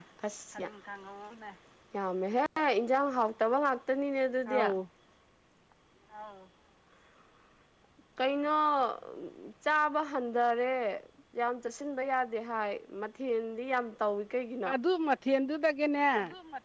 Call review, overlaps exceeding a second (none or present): none